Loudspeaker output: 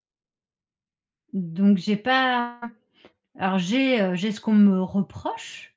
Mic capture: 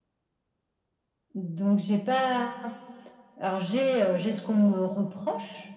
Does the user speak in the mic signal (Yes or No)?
No